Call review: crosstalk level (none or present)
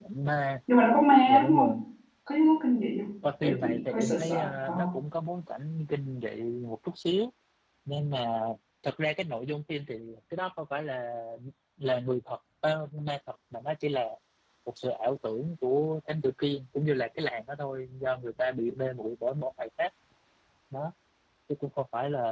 present